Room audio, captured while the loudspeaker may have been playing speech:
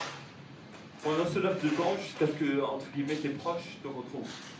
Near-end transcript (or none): pendant ce laps de temps, jusqu'à ce que, entre guillemets, tes proches te retrouvent